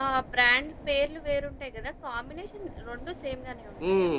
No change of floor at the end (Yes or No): No